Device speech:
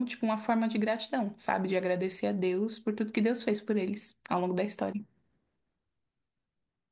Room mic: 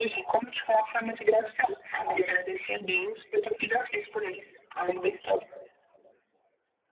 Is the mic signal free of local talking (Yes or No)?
Yes